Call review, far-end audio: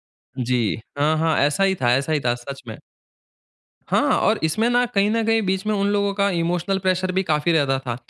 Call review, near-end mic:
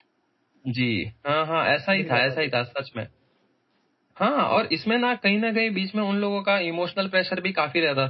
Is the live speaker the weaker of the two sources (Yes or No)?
Yes